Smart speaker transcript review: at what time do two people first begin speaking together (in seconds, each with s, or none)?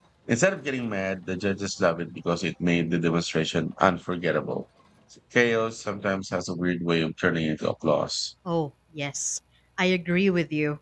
none